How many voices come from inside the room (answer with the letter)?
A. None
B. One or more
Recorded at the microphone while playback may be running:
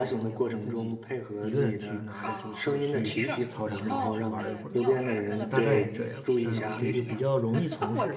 B